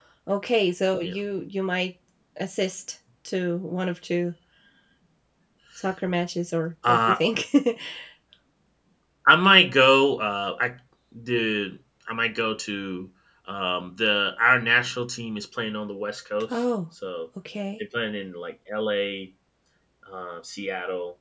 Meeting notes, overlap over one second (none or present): none